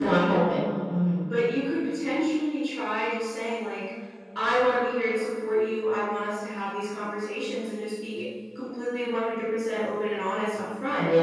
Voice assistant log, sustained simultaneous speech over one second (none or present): none